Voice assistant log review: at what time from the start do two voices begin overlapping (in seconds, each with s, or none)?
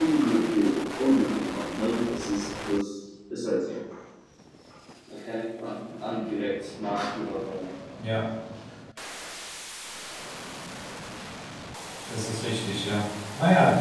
none